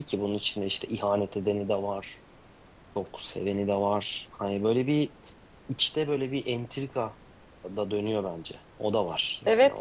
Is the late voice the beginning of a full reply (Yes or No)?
Yes